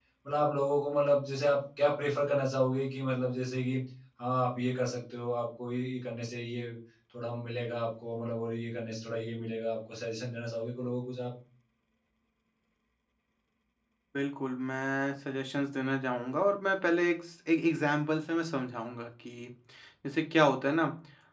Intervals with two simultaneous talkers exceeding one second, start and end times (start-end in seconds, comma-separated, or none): none